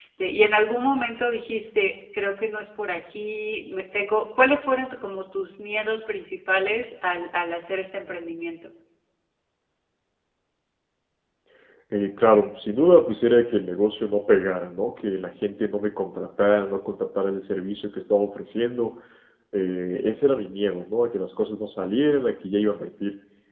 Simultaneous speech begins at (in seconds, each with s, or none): none